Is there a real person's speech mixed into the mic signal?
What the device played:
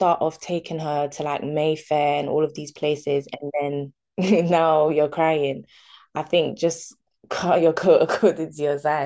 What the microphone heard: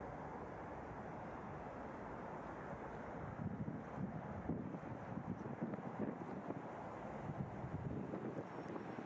No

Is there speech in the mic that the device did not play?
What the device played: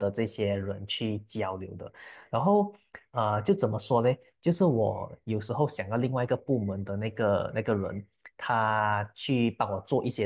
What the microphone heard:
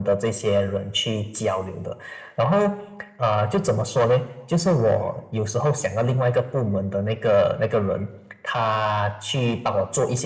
No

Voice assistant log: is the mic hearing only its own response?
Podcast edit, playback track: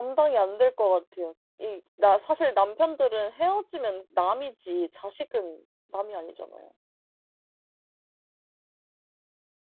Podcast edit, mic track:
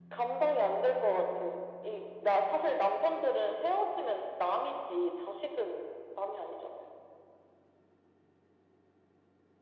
Yes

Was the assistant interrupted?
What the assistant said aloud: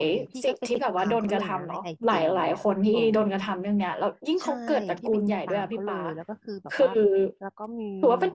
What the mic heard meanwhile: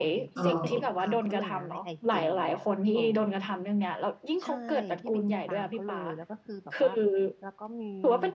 Yes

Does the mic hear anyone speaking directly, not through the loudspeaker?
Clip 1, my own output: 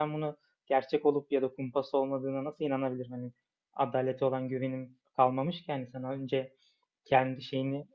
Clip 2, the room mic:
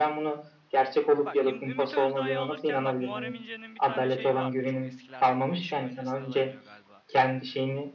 Yes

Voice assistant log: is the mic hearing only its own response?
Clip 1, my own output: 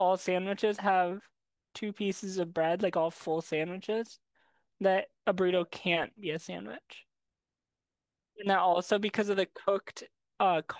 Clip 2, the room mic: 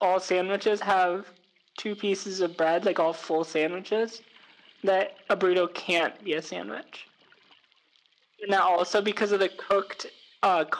Yes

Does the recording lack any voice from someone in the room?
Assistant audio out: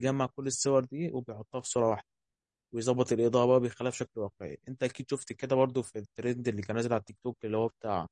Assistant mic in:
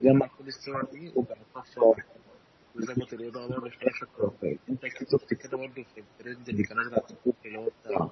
Yes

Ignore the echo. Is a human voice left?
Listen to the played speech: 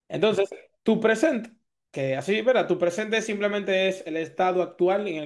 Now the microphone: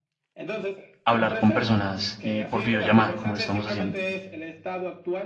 Yes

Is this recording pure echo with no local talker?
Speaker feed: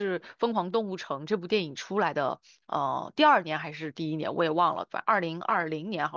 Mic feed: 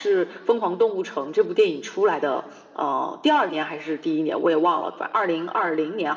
Yes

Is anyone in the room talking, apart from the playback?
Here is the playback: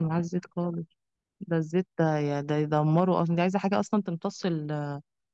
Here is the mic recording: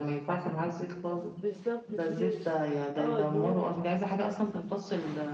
Yes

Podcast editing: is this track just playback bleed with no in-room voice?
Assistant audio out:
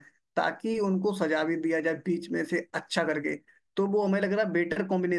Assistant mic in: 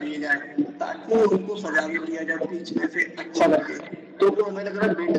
Yes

